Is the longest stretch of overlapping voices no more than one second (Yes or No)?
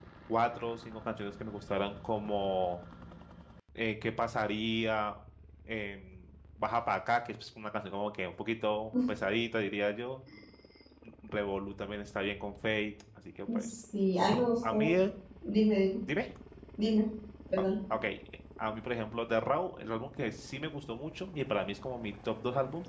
Yes